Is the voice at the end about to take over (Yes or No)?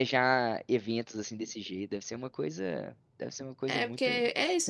Yes